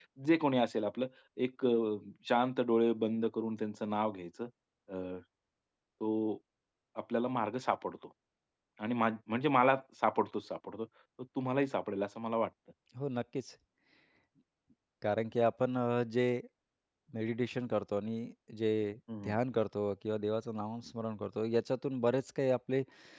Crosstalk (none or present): none